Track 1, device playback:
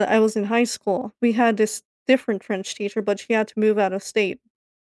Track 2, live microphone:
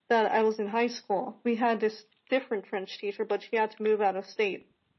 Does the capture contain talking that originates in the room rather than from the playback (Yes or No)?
No